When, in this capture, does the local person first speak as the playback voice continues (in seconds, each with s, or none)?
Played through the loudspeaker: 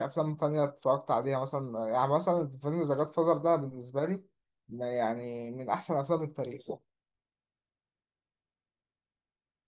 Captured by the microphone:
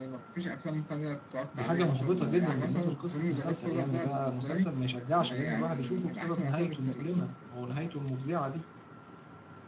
1.5 s